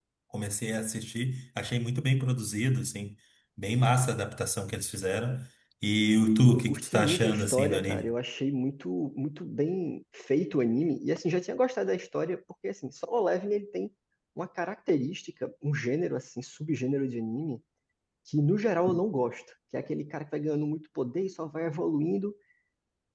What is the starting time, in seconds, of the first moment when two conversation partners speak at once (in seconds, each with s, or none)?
6.5 s